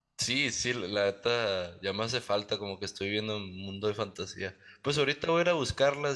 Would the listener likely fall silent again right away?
Yes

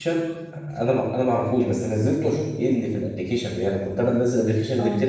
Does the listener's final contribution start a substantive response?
No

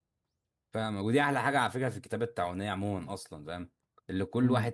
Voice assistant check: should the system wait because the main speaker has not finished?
Yes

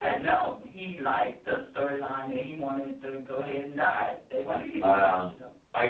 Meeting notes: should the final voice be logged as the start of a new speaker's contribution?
Yes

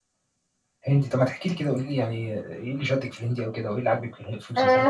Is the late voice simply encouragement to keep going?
No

